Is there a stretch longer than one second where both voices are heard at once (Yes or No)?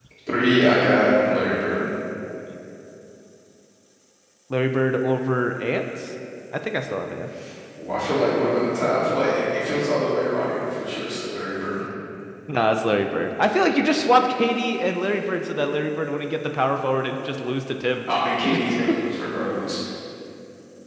No